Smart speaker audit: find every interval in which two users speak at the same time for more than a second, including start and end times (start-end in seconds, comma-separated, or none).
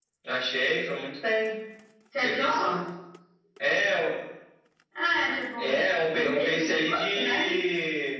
6.1-7.5